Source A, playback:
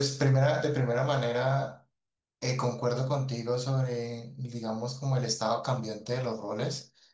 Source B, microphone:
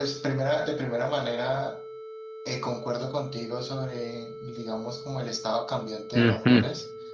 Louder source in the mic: user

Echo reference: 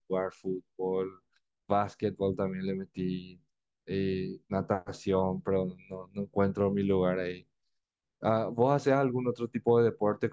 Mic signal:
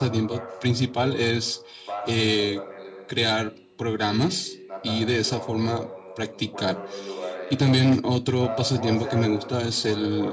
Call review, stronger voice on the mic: user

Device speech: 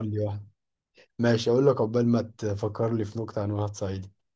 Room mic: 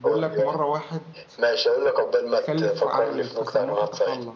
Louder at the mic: echo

